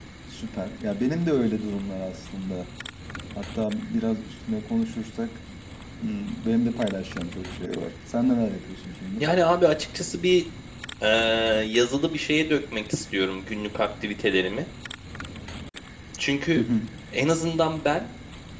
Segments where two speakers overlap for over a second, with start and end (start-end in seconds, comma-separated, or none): none